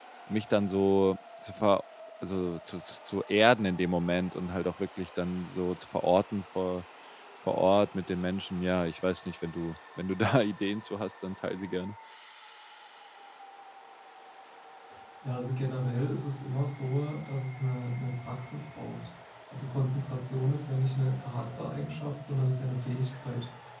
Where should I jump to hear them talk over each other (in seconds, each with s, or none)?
none